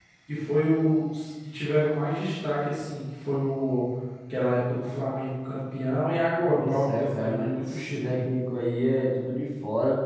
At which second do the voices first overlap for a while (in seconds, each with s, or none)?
6.6 s